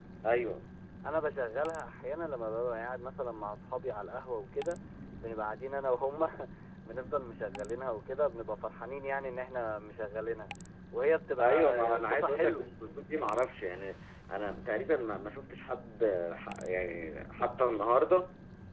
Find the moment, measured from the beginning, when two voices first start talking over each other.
11 s

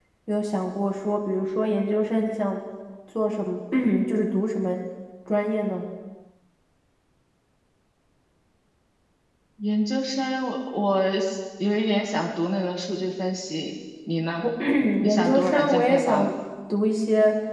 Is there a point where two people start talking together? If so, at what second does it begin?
15 s

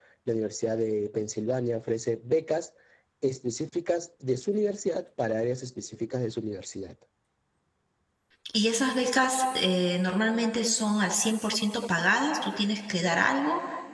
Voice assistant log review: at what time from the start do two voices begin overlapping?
none

